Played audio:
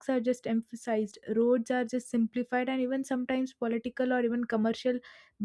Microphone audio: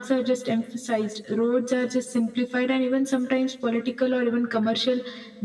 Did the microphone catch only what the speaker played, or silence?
Yes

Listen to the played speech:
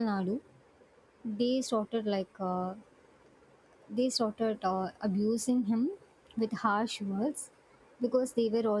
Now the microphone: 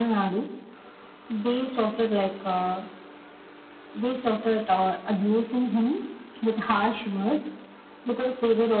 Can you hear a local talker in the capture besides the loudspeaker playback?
No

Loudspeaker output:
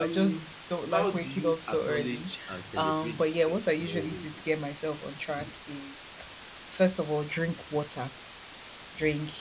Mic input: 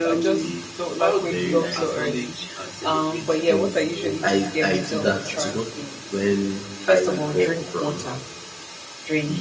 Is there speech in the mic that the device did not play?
Yes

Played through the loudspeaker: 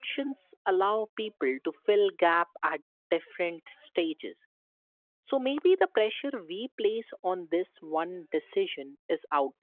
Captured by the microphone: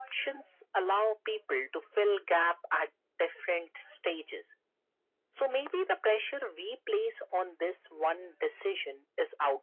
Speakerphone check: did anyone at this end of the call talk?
No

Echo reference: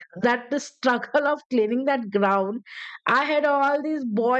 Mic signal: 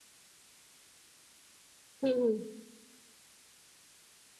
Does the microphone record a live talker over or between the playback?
Yes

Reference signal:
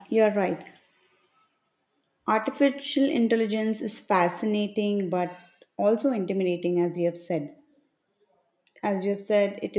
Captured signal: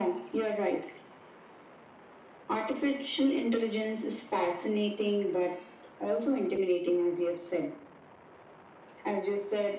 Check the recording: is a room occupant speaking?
No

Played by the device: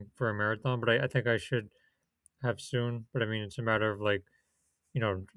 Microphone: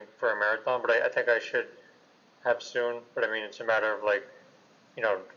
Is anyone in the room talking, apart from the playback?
No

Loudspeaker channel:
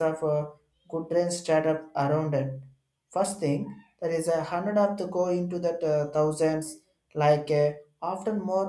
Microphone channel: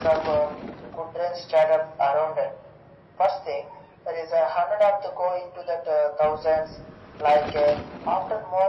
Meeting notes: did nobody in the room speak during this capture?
Yes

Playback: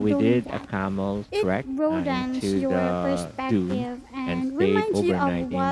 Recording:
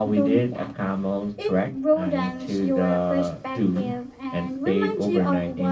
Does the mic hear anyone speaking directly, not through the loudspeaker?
No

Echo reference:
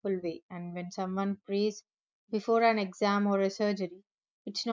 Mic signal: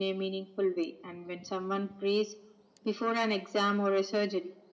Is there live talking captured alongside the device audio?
No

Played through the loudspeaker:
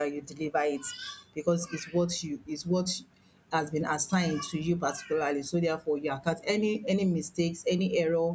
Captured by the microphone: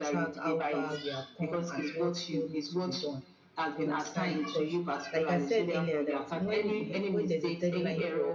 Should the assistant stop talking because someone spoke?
Yes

